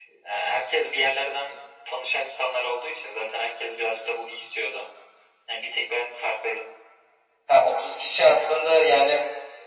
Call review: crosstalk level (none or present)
none